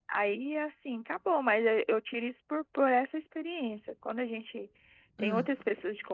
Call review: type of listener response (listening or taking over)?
listening